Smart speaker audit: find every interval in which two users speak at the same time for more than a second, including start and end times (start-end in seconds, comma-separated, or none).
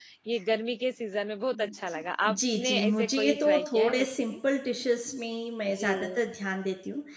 1.5-4.3